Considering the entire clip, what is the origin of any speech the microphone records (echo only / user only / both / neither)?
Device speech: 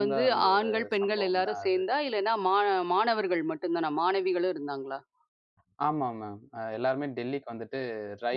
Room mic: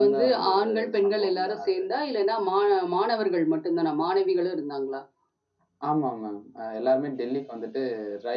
echo only